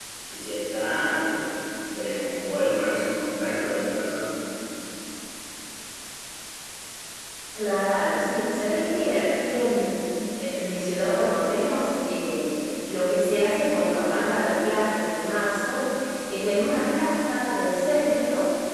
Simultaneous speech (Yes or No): No